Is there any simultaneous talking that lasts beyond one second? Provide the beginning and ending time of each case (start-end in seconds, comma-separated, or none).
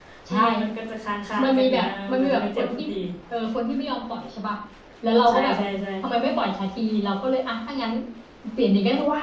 1.4-2.8